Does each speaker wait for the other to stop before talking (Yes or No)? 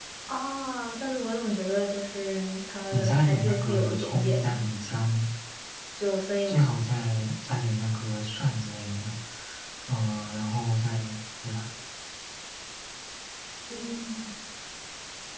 No